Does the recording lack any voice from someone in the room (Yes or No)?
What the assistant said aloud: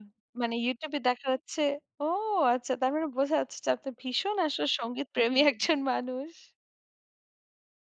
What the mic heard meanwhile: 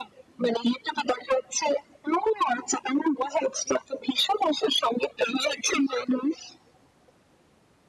Yes